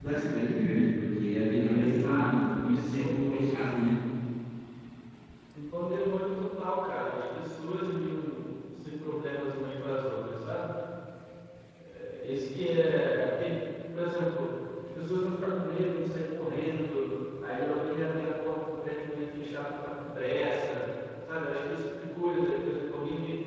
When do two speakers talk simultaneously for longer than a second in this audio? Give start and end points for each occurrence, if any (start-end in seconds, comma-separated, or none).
1.7-3.5